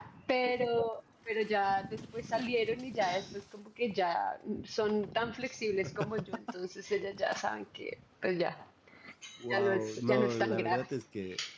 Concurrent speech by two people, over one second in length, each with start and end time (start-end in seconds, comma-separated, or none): 9.5-10.8